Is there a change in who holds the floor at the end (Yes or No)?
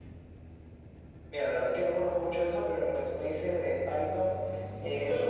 No